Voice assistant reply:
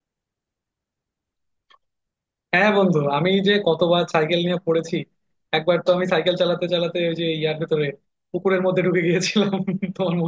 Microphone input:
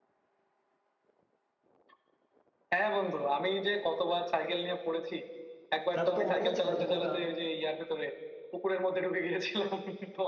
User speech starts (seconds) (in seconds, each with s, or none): 6.0 s